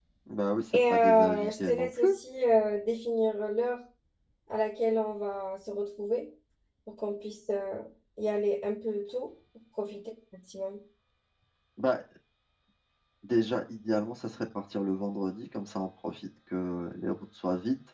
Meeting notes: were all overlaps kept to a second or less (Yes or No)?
No